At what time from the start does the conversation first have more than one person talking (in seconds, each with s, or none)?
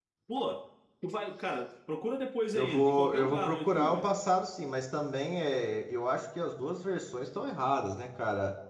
2.5 s